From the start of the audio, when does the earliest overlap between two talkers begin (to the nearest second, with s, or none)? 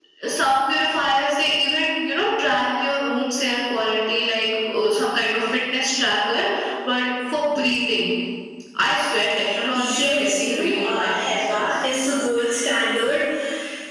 10 s